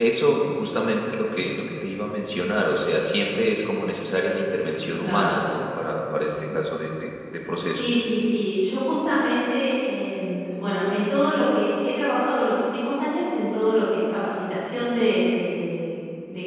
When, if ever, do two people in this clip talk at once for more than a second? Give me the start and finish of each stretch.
none

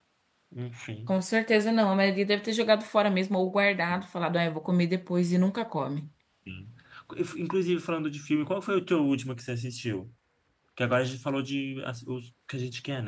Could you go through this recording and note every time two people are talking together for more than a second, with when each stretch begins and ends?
none

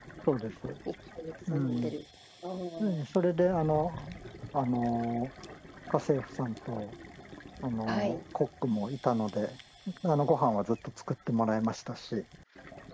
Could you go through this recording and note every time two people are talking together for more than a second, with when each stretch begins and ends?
none

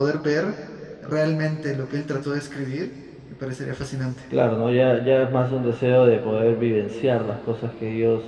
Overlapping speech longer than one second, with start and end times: none

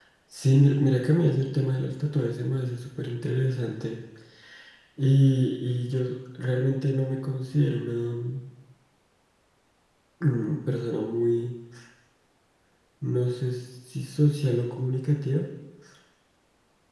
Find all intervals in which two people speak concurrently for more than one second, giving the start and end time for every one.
none

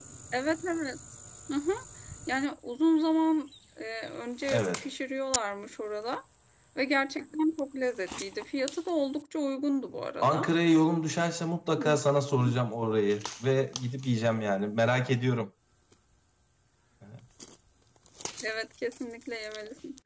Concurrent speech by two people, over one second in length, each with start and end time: none

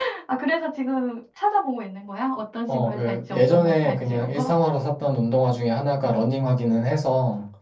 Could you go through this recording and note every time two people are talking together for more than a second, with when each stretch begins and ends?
2.7-4.5

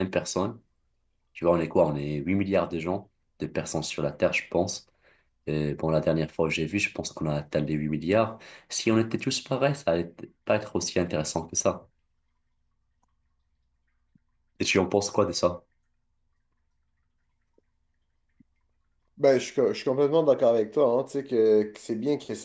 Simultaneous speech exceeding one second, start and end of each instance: none

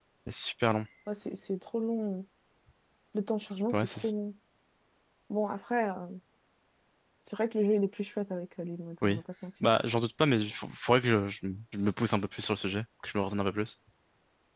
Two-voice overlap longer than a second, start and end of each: none

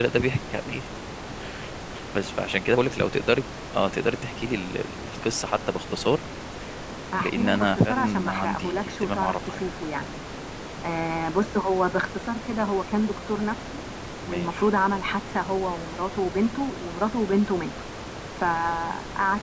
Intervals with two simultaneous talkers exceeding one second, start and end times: 7.1-9.7

